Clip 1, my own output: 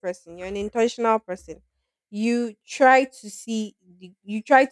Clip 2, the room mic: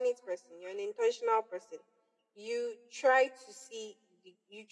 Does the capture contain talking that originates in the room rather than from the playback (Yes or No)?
No